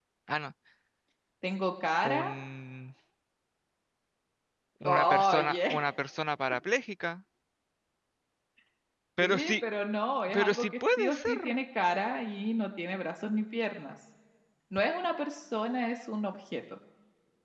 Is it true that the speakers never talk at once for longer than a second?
No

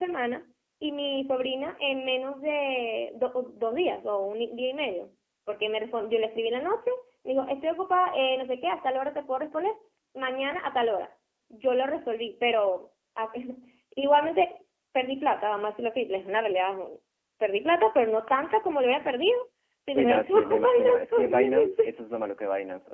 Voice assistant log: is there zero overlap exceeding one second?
No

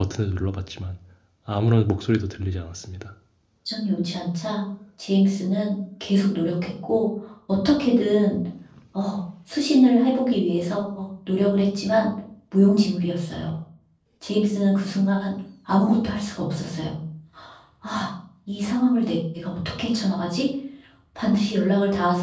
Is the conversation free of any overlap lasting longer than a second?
Yes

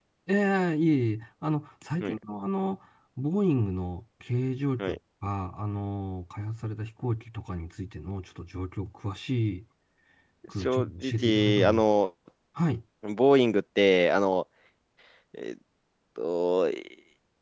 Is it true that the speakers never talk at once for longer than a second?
No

